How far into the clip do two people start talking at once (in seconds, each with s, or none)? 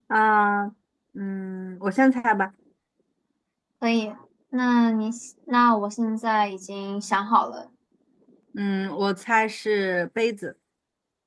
none